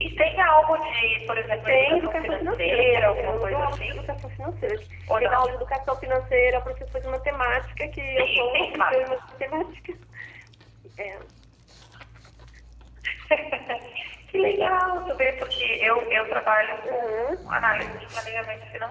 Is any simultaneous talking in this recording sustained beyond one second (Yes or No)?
Yes